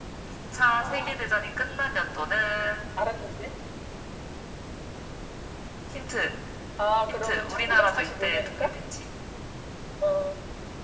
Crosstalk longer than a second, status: present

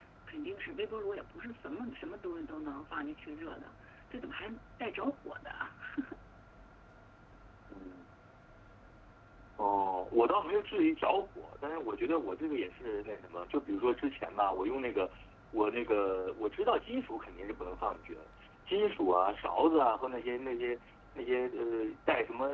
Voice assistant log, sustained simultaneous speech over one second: none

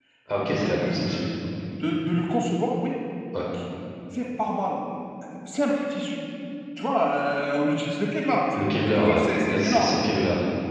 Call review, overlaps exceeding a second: present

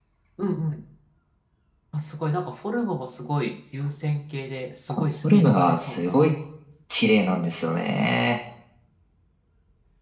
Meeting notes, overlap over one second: present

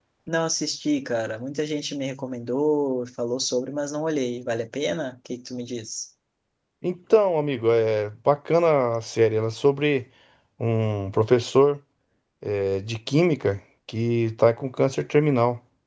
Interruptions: none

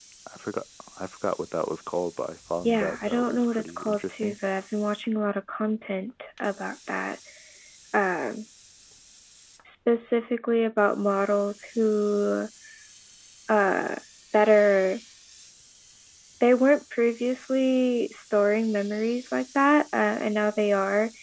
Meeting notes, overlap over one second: present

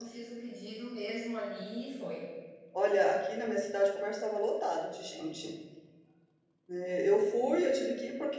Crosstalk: none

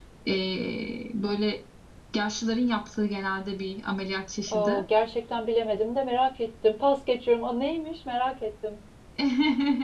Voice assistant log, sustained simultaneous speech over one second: none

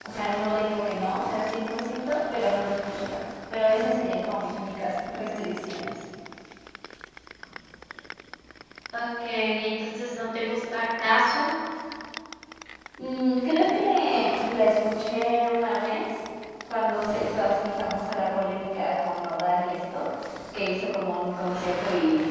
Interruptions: none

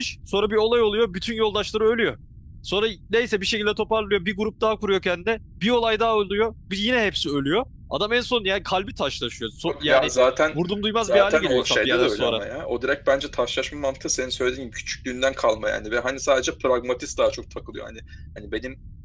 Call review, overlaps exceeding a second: present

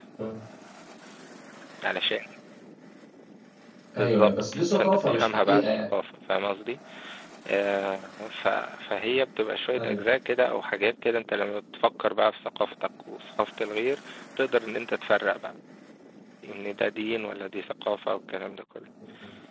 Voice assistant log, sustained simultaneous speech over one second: present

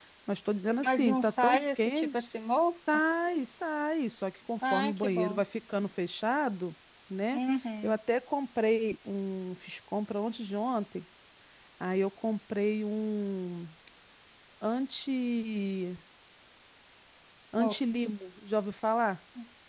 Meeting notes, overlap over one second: present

